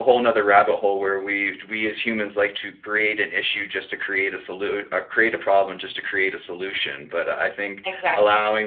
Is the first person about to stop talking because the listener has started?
No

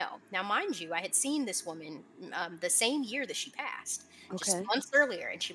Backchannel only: Yes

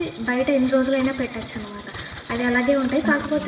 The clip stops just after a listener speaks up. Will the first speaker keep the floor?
Yes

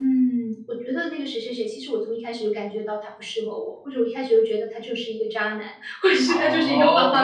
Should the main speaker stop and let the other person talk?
Yes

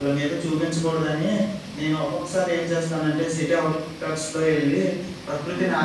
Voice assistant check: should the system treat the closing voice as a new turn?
No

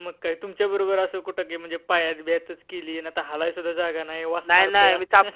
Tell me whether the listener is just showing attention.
No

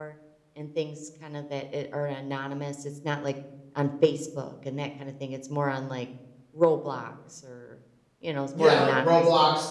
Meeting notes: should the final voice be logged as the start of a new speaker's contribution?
Yes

